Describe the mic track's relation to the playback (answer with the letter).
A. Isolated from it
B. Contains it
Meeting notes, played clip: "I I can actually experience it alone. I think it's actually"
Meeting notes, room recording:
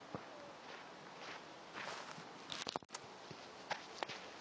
A